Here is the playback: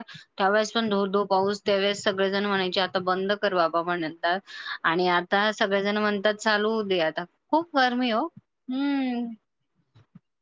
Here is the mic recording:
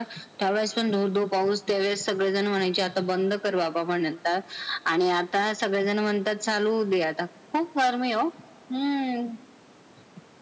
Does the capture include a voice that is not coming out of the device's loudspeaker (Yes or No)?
No